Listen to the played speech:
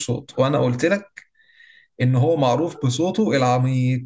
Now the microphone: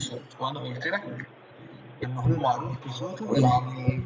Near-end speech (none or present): present